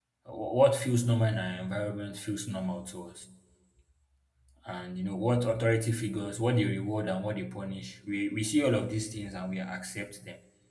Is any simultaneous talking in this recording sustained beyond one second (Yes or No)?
No